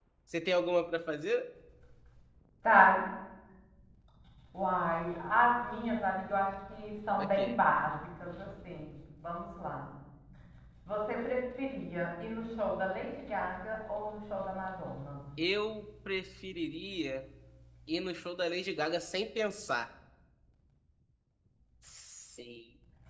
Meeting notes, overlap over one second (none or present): none